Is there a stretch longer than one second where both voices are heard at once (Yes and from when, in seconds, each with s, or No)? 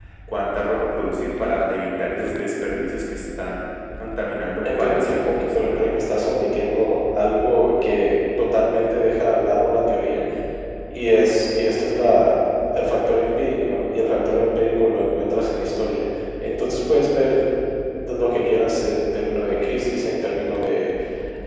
Yes, from 4.6 s